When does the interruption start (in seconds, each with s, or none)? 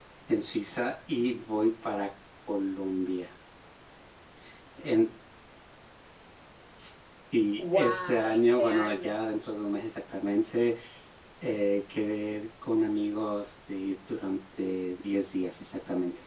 7.6 s